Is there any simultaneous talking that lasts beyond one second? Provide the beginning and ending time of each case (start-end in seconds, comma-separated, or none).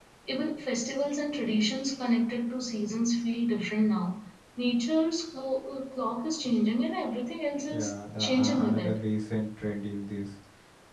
7.7-8.9